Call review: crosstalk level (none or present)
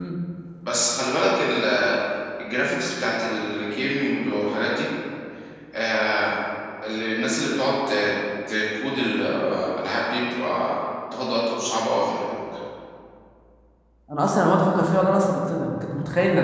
none